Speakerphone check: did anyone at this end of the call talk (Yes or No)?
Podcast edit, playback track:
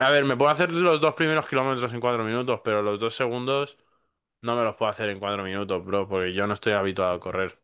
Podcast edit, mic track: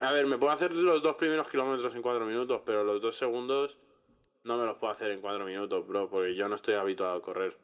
No